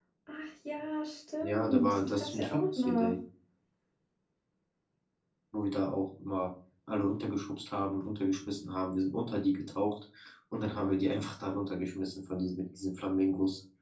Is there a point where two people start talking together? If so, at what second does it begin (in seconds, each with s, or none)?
1.4 s